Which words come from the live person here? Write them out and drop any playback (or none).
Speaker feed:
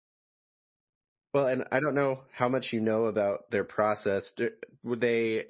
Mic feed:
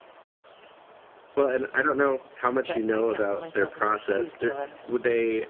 But I can't put myself in their shoes, so I have to